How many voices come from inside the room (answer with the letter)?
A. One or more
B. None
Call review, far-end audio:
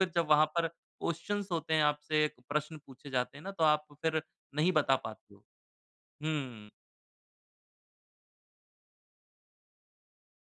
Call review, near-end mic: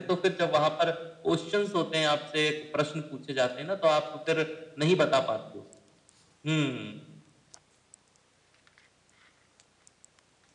B